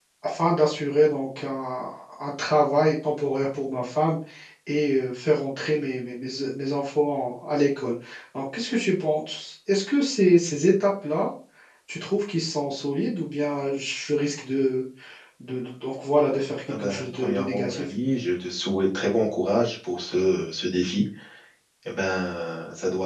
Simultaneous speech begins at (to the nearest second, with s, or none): 17 s